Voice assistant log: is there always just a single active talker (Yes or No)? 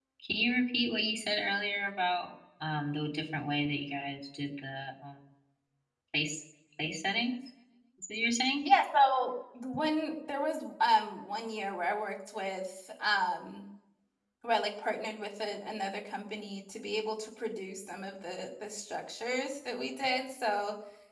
Yes